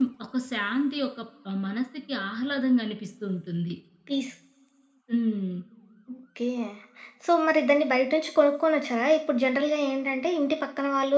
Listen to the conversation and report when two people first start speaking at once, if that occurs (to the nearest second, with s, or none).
none